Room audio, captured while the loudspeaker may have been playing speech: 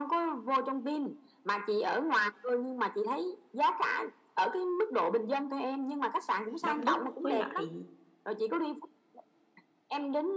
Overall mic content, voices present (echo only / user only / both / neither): both